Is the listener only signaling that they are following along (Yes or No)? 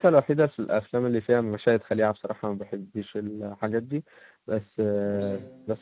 Yes